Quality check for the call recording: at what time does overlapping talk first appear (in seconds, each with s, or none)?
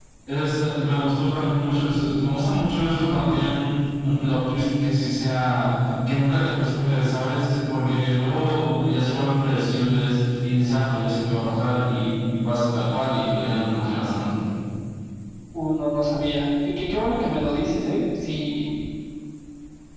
none